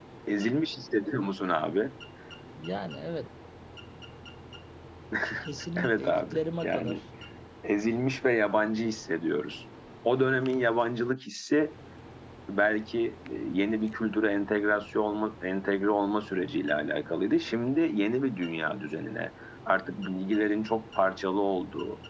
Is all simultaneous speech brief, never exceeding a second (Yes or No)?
No